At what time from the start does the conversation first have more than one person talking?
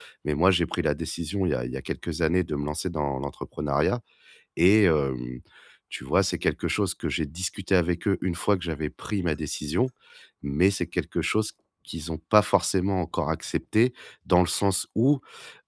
none

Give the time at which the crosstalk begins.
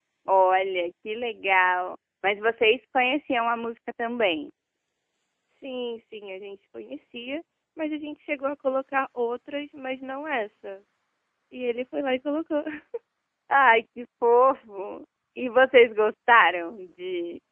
none

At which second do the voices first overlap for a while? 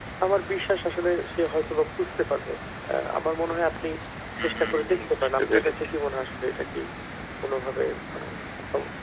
4.4 s

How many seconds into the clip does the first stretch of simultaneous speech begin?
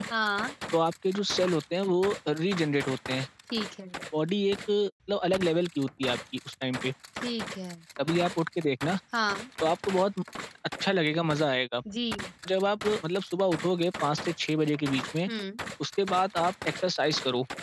none

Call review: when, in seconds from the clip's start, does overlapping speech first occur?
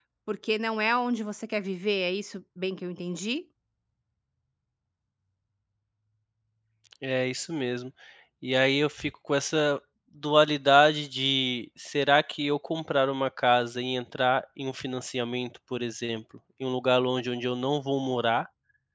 none

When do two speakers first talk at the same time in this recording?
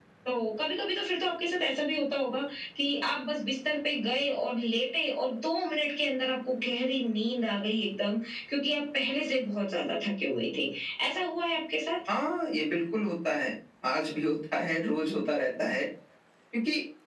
none

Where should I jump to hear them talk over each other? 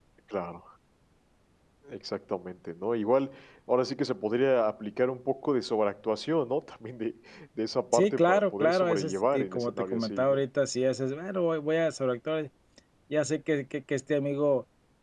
7.9 s

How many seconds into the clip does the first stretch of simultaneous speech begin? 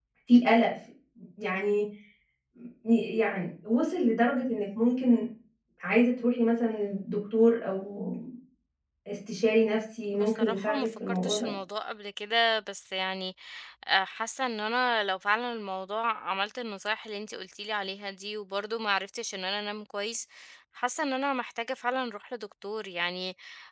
10.1 s

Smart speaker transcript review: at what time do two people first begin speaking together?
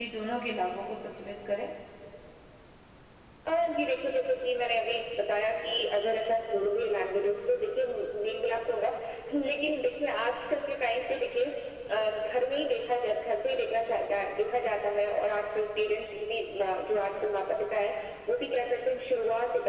none

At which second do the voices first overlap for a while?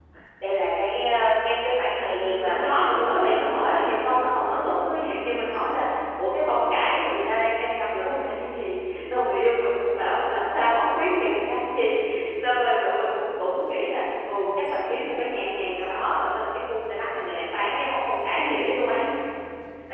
2.2 s

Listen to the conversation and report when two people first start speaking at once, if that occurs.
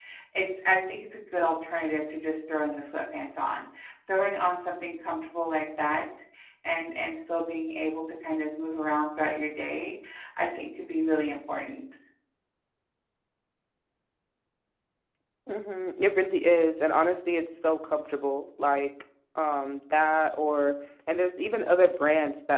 none

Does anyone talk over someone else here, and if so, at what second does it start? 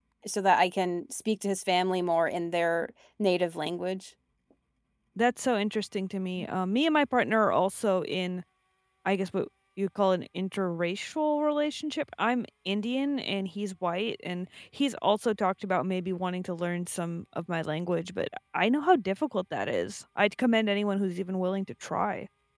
none

